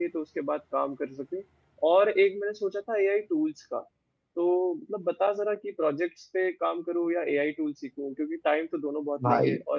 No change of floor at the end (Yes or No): Yes